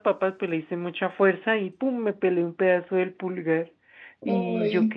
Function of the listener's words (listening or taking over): listening